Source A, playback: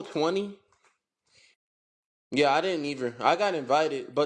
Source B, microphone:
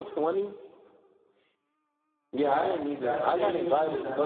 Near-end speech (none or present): present